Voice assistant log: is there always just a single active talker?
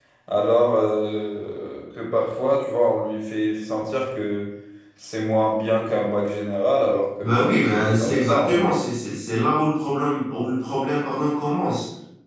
No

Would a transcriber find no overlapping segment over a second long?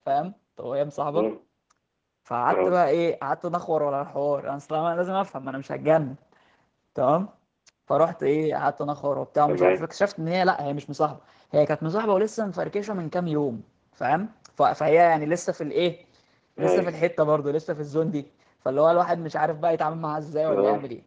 Yes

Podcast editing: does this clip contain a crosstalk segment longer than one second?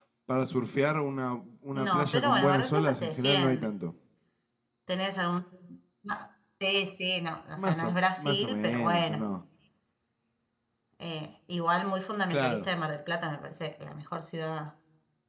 Yes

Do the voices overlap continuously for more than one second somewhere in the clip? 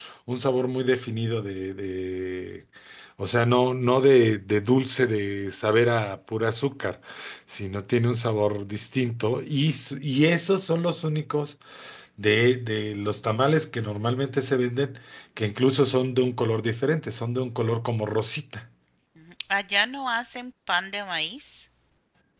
No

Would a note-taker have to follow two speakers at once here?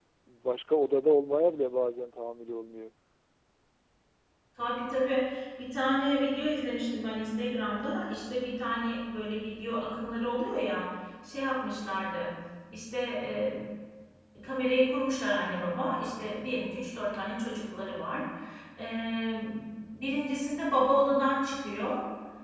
No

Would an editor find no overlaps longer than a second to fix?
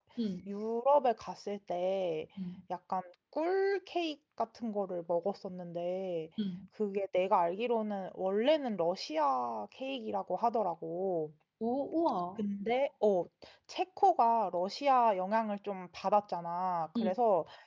Yes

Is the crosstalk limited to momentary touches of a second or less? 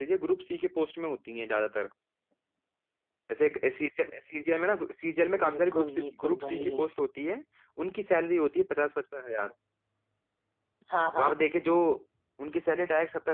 No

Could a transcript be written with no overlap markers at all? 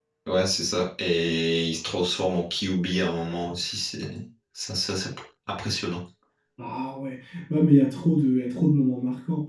Yes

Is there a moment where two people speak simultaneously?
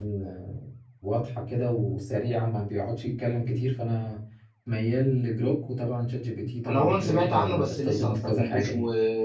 Yes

